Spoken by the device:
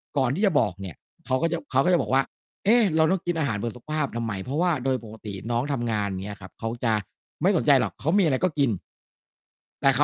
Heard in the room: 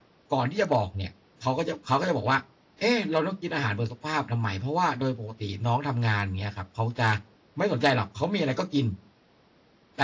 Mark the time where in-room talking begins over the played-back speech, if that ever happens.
none

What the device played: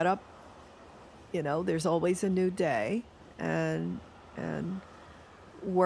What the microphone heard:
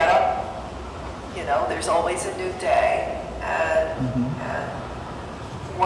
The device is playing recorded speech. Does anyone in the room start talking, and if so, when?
4.0 s

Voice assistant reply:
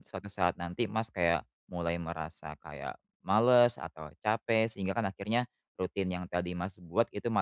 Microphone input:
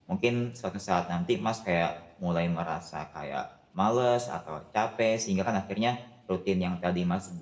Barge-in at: none

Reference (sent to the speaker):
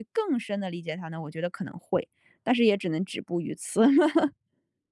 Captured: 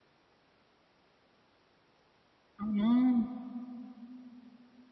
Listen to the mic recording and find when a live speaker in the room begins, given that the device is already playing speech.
2.6 s

